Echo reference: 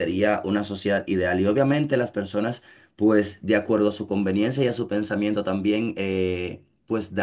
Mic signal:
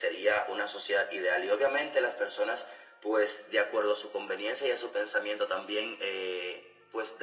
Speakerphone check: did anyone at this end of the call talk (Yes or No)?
No